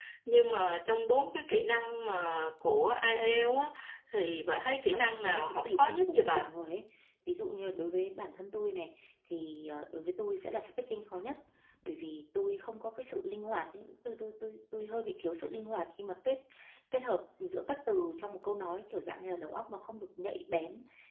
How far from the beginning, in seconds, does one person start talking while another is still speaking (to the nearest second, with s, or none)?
5 s